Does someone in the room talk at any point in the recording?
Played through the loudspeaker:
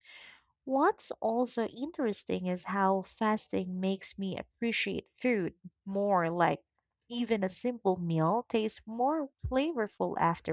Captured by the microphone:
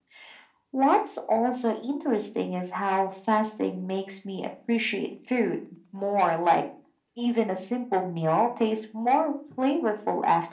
No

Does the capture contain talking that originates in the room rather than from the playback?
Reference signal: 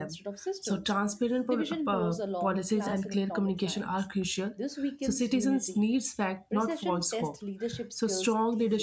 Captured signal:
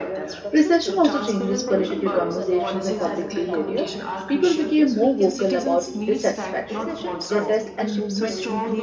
Yes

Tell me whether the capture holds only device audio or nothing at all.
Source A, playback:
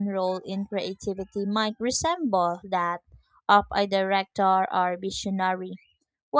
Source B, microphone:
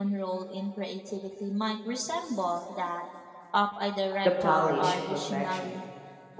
No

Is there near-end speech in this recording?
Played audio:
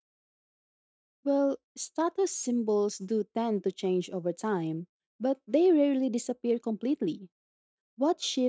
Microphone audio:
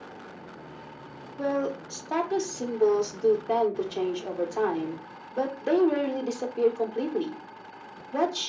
No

